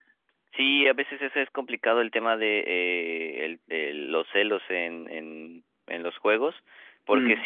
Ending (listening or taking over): listening